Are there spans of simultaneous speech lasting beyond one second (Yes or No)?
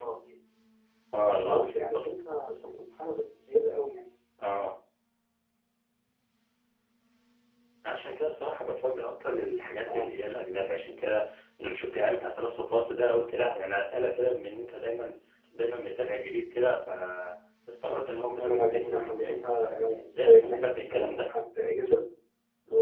Yes